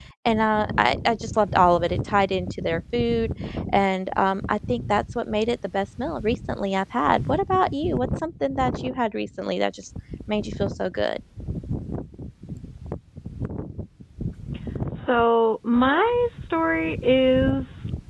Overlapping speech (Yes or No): No